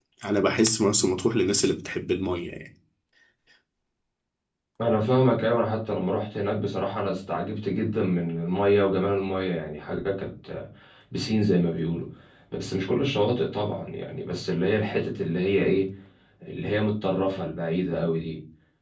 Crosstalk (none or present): none